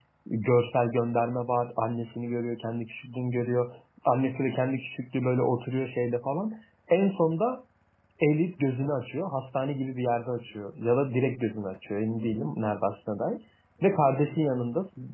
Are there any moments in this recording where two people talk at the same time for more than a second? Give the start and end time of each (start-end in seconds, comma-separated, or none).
none